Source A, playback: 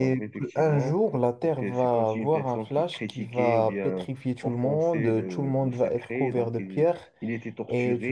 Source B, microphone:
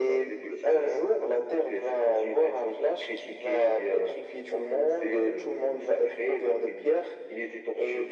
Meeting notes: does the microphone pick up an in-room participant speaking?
No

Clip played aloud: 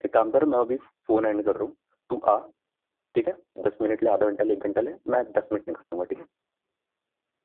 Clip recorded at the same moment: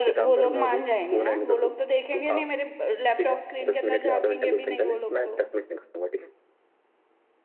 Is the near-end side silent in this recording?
No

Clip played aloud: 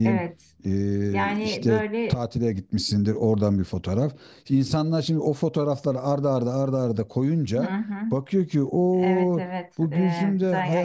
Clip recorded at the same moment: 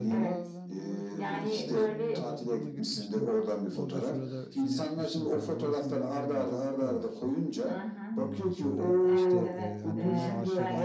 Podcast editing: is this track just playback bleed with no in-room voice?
No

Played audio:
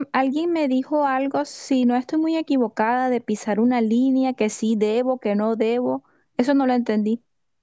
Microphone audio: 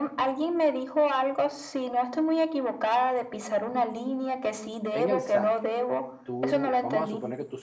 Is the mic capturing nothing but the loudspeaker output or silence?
No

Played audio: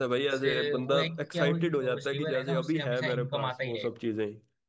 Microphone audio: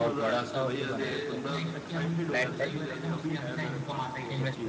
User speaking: Yes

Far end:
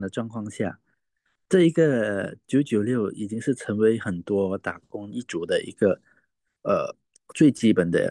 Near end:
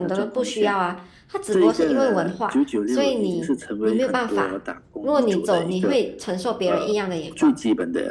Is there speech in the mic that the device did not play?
Yes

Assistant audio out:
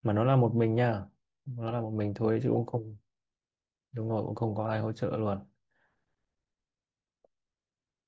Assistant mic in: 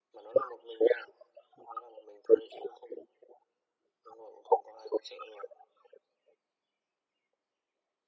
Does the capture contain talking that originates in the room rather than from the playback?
No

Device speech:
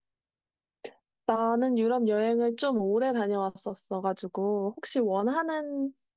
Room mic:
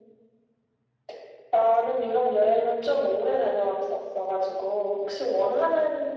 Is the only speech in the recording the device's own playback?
Yes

